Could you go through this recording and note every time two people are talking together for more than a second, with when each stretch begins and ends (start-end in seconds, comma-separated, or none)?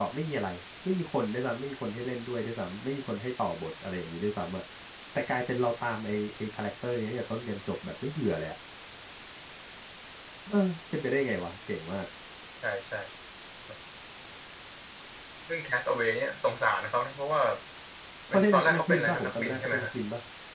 18.3-19.9